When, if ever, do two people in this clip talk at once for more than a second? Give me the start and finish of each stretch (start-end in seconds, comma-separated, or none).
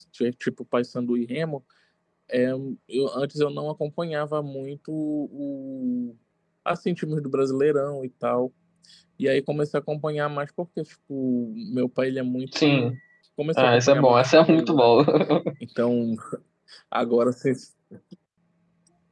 13.6-14.9